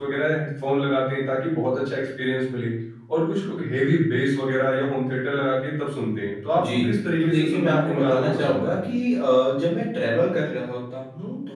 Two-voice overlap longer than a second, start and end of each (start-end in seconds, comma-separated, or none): 6.6-8.7